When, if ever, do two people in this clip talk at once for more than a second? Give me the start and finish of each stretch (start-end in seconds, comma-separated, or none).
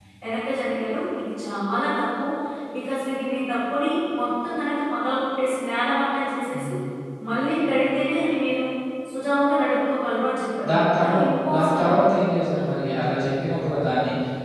10.7-12.1